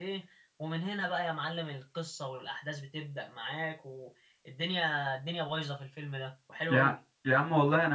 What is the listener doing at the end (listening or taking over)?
taking over